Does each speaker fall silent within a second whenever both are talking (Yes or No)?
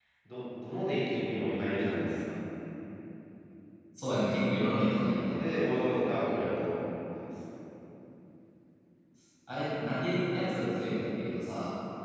Yes